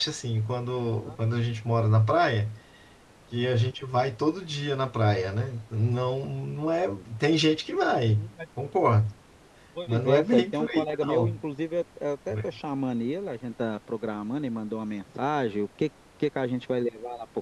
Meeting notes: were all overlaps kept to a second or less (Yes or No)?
No